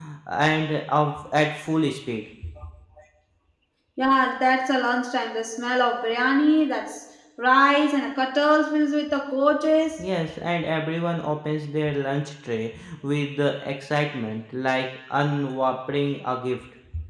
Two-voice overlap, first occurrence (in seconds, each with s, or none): none